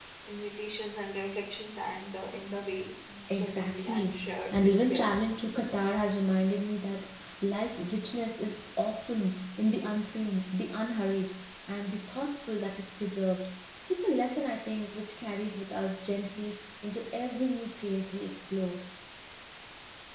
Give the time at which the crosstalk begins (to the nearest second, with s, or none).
3 s